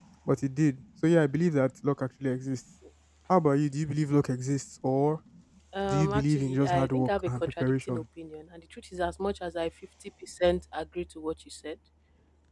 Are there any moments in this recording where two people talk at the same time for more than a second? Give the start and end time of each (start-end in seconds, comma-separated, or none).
5.9-8.0